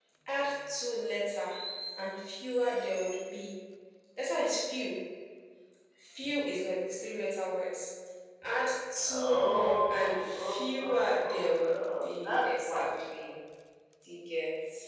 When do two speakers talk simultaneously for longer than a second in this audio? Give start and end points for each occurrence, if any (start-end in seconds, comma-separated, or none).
9.1-12.8